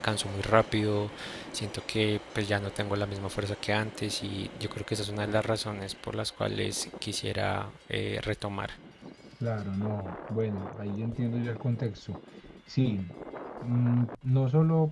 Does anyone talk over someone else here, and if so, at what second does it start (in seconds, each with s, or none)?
none